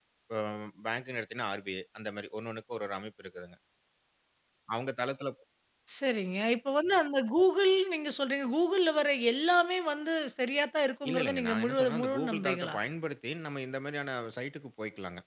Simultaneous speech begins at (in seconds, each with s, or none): 11.0 s